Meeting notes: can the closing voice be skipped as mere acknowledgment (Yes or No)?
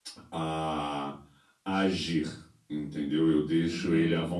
Yes